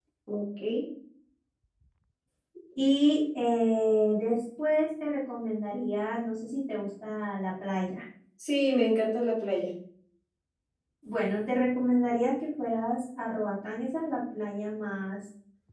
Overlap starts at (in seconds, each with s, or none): none